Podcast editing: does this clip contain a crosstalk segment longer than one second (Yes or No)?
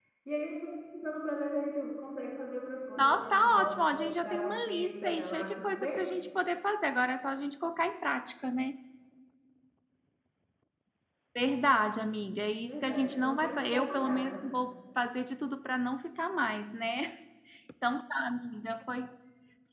Yes